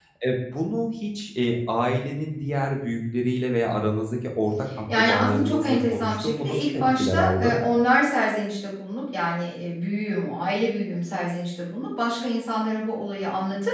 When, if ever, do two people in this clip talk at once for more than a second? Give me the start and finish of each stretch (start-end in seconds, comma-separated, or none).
5.0-7.6